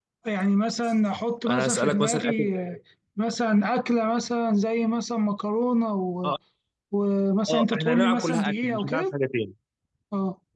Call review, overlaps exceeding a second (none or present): present